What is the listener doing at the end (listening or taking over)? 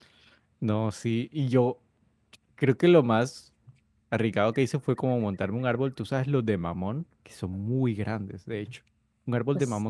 listening